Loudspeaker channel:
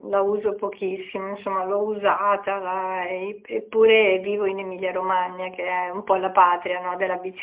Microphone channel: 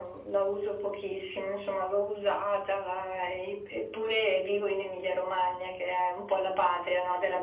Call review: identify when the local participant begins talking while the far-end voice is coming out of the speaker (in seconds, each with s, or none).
none